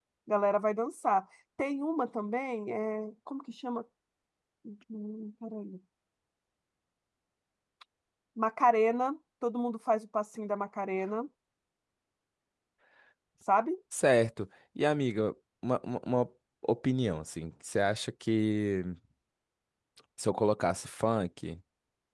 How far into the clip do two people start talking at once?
none

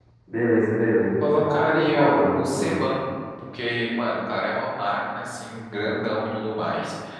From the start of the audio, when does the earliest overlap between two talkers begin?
1.2 s

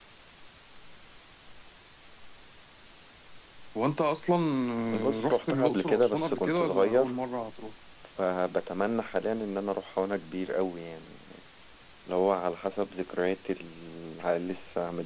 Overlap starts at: 5.2 s

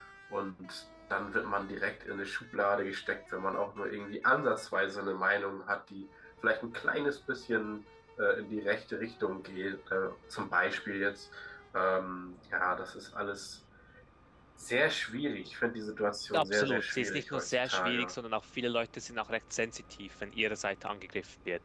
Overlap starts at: 16.3 s

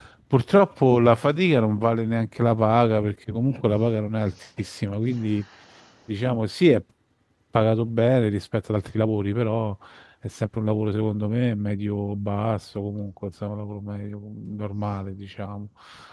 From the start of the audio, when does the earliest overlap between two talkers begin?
none

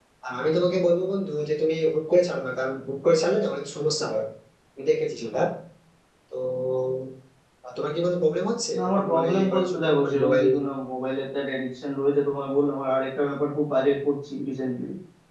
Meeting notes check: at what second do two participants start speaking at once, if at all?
8.7 s

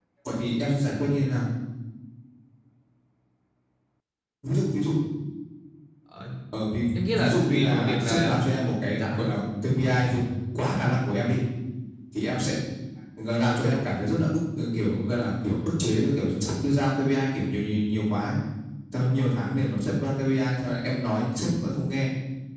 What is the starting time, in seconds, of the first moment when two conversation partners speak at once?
7.1 s

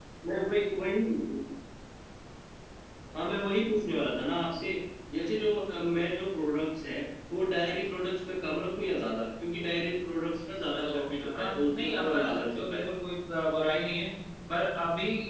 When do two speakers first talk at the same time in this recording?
10.7 s

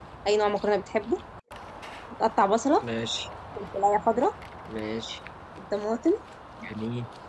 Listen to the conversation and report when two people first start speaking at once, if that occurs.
none

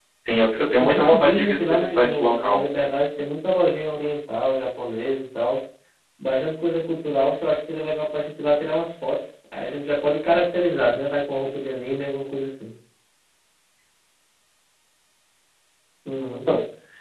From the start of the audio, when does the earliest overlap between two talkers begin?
0.8 s

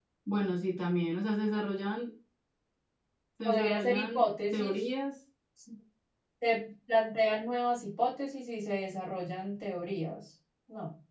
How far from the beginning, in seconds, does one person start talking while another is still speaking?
3.4 s

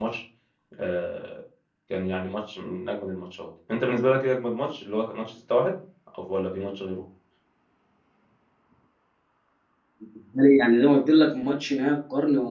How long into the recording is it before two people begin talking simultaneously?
none

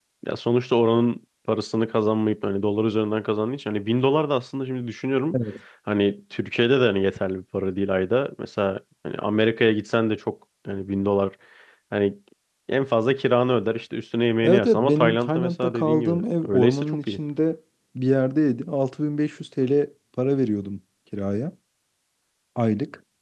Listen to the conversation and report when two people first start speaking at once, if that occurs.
14.4 s

